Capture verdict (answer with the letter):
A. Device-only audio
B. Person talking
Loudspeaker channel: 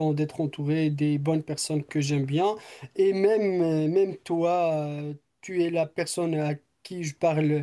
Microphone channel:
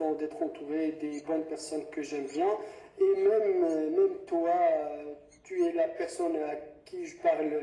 A